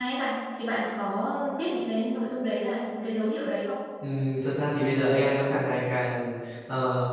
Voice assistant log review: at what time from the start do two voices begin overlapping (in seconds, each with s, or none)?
none